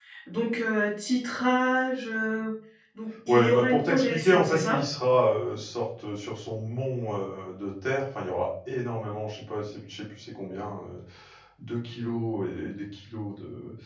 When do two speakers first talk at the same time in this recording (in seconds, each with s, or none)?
3.3 s